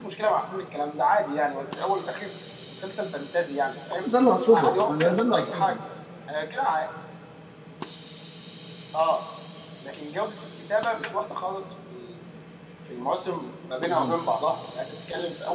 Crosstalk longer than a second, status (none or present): present